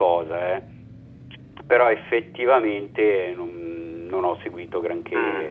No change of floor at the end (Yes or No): No